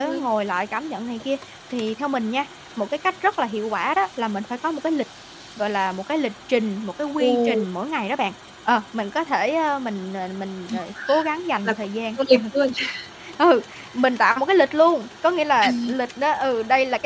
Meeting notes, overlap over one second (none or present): none